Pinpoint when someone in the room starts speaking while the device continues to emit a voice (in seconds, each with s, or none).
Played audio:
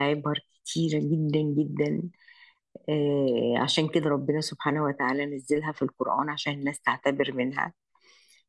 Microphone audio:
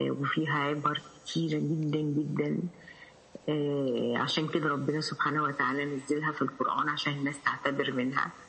none